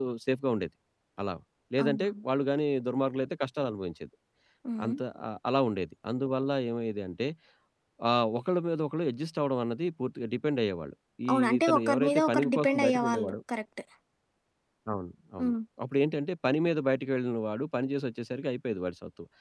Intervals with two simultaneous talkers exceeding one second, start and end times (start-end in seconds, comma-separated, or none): 11.3-13.3